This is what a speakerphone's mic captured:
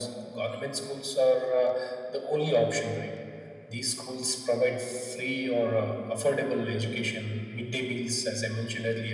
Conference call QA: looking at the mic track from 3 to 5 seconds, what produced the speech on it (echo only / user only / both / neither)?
echo only